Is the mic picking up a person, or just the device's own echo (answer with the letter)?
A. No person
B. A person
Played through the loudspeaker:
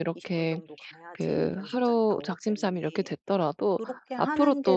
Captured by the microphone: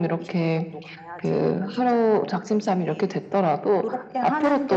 A